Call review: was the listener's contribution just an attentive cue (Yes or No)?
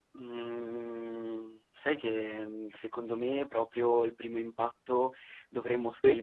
Yes